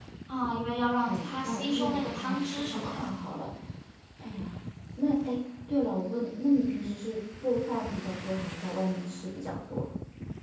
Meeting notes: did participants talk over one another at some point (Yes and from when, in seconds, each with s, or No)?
Yes, from 1.1 s